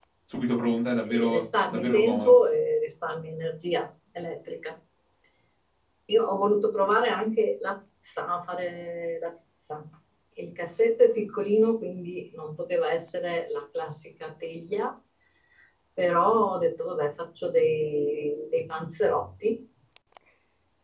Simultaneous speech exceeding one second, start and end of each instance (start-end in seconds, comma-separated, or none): 1.1-2.4